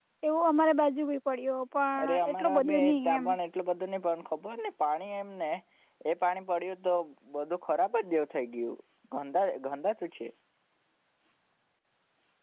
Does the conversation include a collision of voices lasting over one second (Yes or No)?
Yes